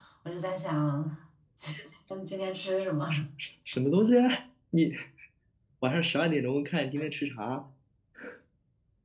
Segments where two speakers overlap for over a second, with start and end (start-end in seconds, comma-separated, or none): none